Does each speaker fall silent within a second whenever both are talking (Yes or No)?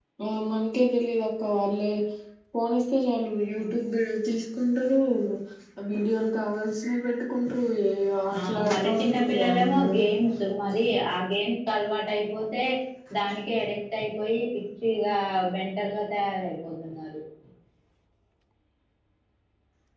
No